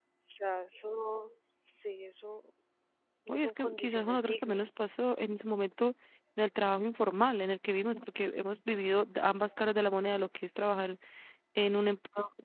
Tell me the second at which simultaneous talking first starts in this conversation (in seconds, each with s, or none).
3.3 s